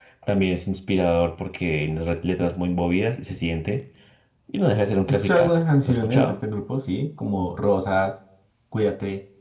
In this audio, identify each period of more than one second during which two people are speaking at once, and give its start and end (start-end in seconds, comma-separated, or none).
5.1-6.4